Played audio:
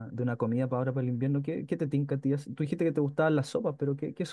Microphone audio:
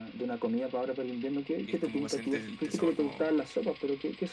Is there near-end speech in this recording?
Yes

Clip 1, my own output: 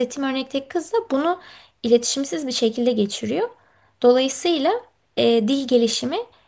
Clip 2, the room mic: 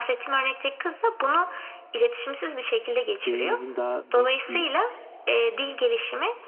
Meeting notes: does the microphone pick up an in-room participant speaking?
Yes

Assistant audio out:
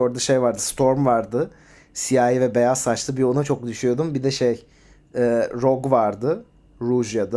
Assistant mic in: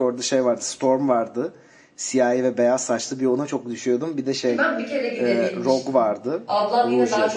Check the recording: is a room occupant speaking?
Yes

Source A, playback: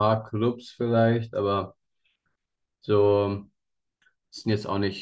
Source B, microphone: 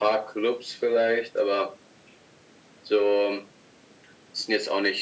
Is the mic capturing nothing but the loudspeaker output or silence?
Yes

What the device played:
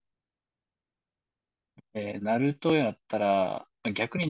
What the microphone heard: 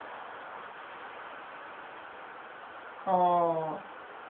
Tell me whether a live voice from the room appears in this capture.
Yes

